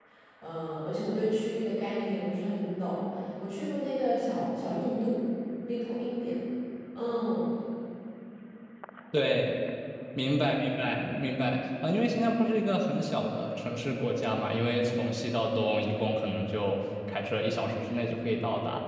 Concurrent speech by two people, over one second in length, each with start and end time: none

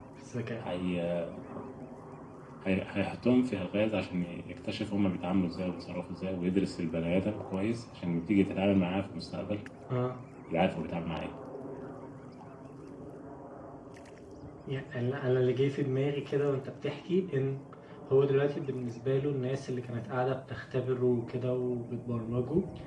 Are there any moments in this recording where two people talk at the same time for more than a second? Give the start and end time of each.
none

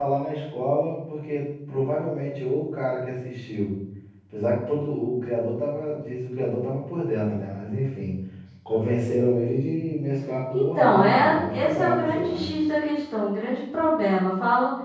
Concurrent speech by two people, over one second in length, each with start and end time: 10.5-12.5

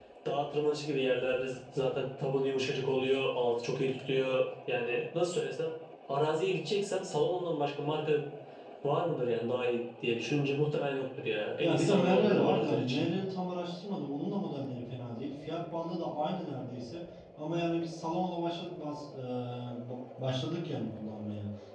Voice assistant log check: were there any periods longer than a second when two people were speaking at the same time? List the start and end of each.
11.6-13.1

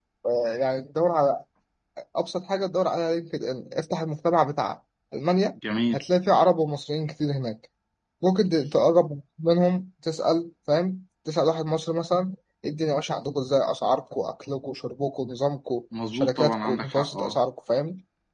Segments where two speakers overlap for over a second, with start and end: 16.1-17.4

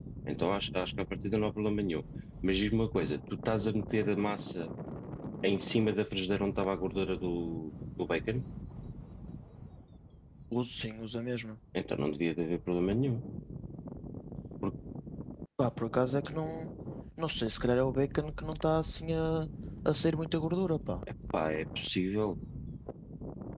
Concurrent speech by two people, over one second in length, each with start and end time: none

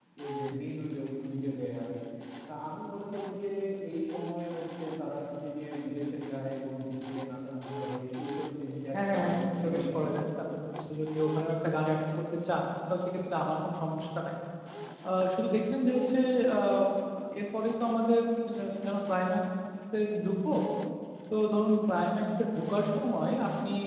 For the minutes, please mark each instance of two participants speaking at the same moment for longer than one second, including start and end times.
8.9-10.1

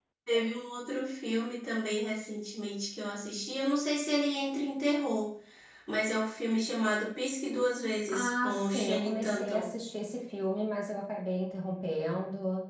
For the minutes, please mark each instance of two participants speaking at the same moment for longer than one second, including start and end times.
8.1-9.7

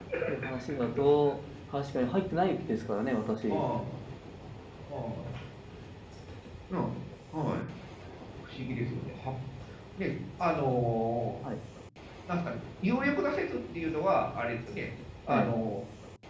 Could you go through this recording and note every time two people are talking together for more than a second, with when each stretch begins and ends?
none

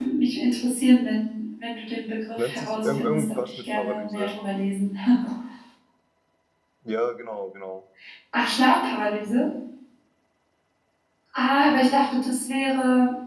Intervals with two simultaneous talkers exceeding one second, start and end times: 2.4-4.3

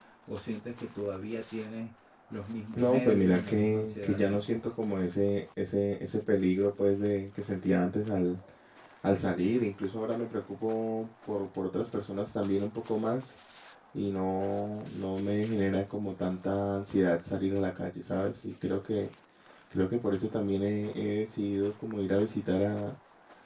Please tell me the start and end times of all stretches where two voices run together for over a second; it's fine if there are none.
2.8-4.7

